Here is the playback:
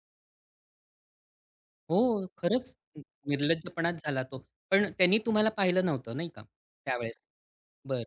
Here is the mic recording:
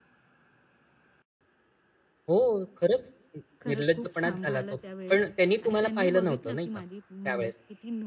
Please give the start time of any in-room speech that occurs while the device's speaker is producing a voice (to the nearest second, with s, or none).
4 s